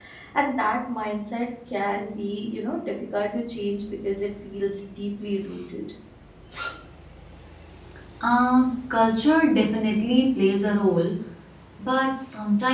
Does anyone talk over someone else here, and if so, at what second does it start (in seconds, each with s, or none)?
none